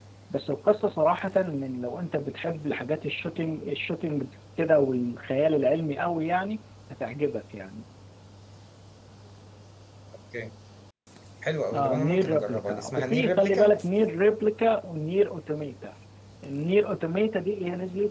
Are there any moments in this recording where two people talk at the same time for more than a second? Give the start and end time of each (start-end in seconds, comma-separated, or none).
11.7-13.7